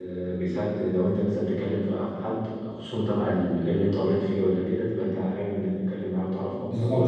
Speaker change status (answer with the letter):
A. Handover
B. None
A